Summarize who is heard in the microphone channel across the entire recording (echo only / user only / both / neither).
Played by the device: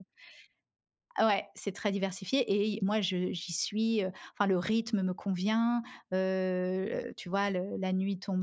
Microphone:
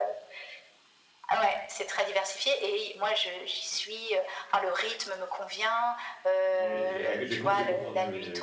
both